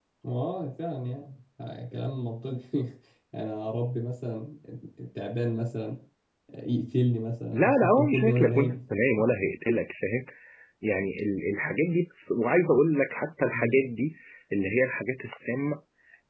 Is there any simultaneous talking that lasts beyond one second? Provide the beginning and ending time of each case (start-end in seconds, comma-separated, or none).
7.5-8.7